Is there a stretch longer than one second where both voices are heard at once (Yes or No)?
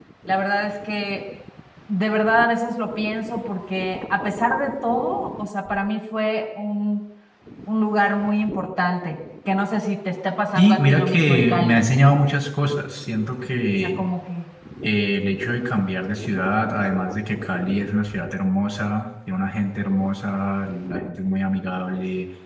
Yes